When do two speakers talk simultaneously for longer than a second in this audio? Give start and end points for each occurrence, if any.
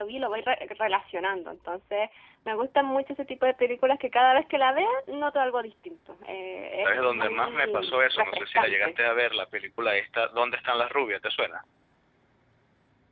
6.8-9.0

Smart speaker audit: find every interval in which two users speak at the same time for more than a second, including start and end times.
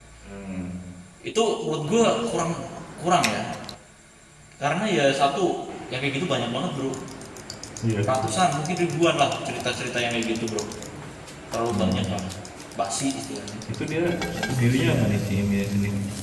none

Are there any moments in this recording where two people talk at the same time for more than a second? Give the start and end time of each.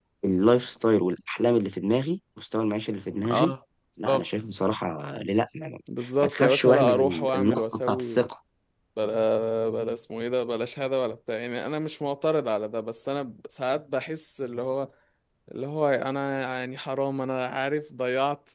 6.2-8.3

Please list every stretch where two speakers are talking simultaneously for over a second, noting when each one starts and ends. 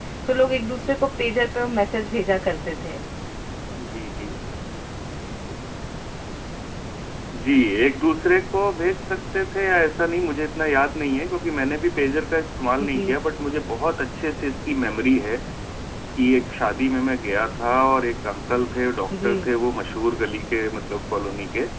none

